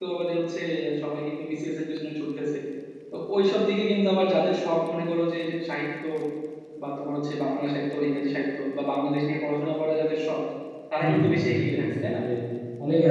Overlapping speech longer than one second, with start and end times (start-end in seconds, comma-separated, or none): 11.0-12.2